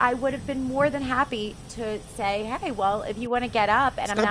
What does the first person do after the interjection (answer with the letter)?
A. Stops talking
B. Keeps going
A